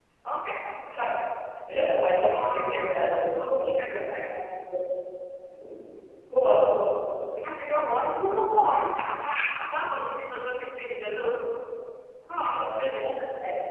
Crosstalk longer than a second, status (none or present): present